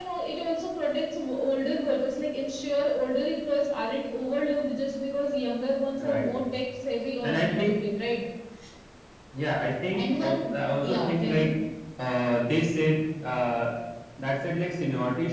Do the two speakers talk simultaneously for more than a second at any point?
Yes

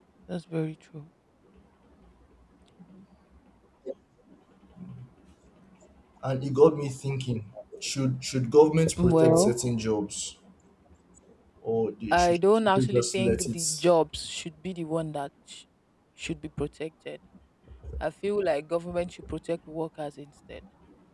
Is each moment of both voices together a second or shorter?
No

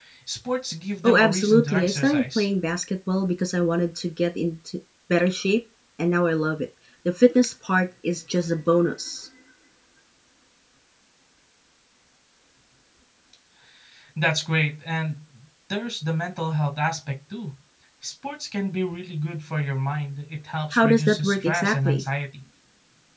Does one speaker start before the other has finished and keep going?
Yes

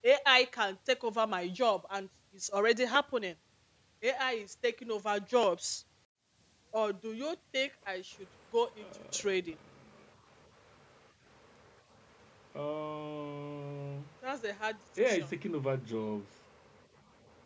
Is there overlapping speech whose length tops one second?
No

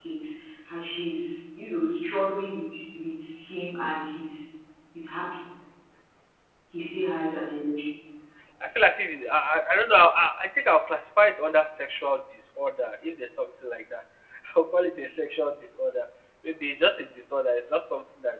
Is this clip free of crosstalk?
Yes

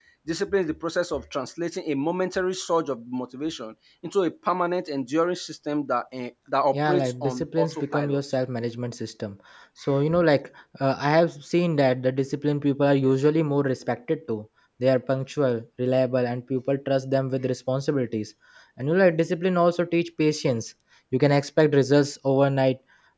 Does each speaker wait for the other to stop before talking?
No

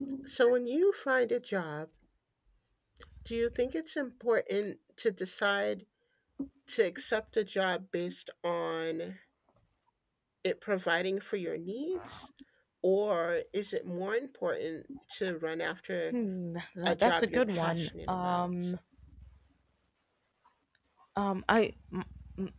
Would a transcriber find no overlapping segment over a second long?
No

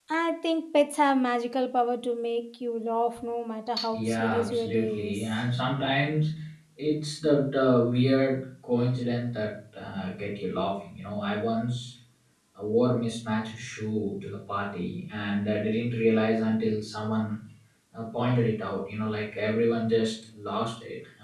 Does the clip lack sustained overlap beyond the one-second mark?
No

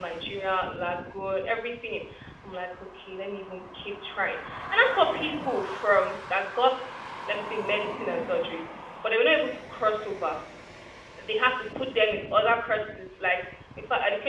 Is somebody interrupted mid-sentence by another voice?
No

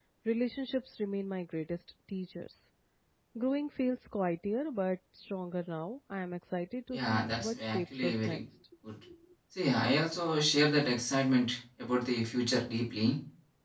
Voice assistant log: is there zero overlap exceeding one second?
No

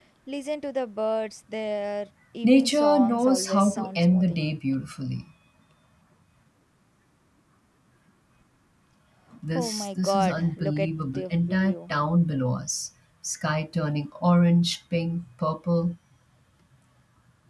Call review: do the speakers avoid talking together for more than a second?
No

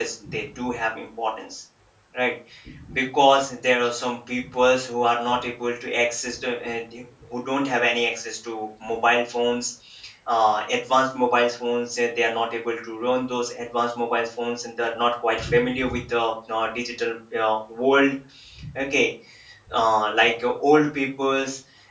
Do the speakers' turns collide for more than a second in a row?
No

